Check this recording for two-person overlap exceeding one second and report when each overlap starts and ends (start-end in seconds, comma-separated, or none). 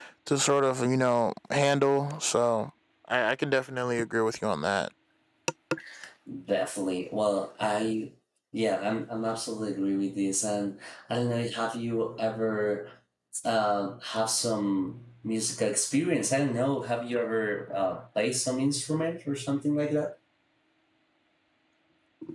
none